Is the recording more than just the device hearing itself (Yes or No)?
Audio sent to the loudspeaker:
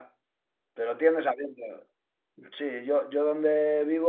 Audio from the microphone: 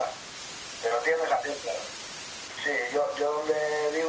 No